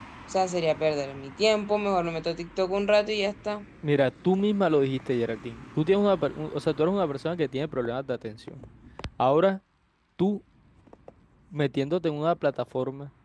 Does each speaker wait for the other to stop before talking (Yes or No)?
Yes